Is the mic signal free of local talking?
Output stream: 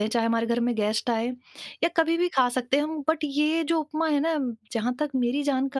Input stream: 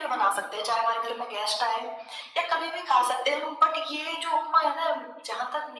Yes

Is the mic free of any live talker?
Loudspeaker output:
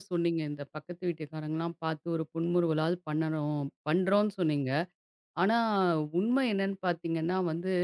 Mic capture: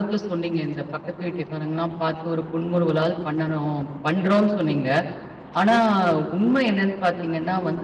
Yes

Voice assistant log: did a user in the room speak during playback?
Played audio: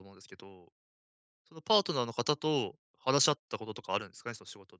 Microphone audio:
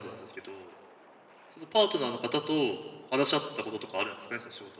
No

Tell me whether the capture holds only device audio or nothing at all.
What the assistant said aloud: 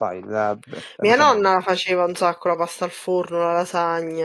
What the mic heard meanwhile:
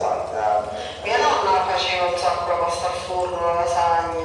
Yes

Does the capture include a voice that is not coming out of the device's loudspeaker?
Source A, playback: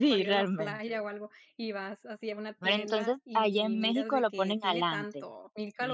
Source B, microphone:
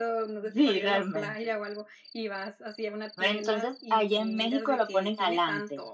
No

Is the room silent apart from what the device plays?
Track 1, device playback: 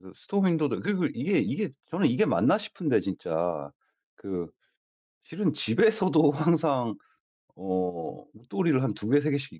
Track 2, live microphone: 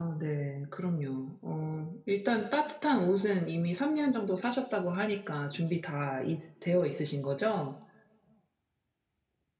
No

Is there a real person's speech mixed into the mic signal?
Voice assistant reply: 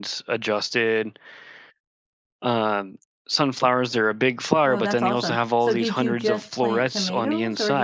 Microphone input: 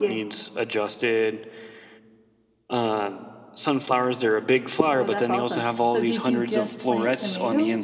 No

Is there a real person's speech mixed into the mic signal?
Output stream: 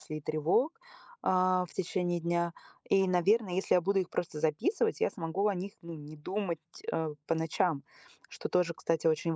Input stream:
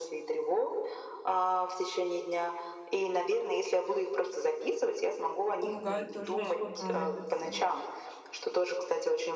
Yes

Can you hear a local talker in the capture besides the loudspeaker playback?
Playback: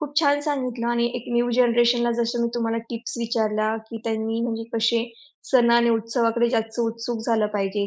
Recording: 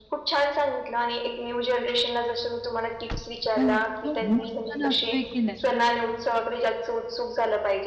Yes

